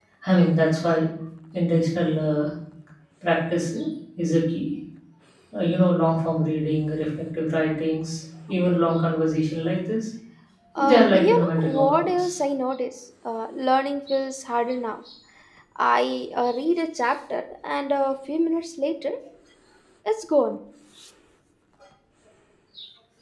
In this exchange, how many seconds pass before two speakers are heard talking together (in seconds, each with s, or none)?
10.8 s